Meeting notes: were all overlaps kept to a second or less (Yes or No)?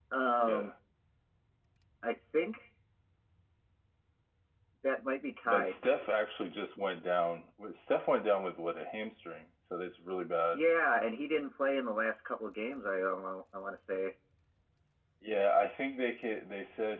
Yes